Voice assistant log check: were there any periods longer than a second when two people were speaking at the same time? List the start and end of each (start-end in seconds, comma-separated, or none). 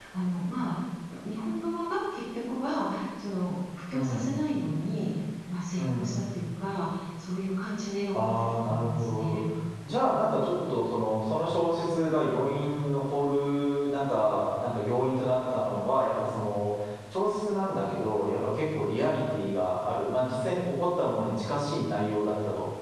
8.1-9.4